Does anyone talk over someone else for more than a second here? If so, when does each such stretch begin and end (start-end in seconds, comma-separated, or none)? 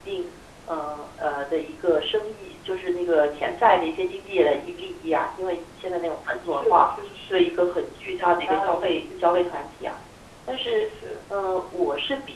8.2-9.5